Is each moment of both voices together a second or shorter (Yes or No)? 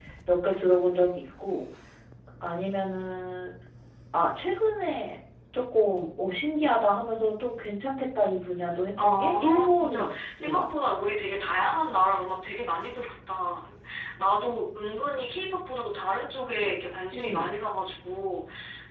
No